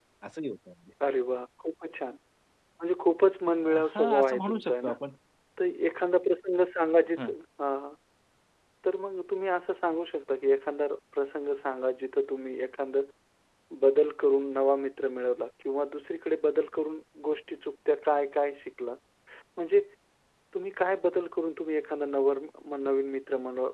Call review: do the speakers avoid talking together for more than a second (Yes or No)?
No